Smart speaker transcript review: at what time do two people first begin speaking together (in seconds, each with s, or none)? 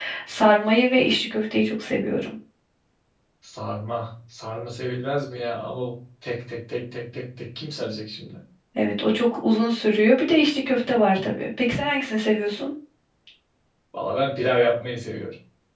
none